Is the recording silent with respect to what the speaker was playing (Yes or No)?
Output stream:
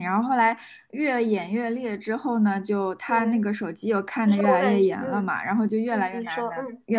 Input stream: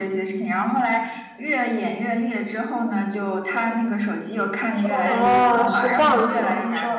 No